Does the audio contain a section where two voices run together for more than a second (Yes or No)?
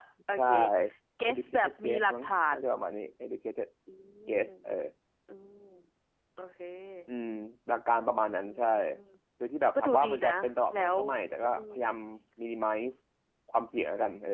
Yes